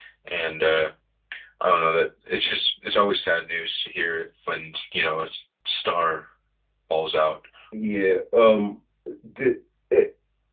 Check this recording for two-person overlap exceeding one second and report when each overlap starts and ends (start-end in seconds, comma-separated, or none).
none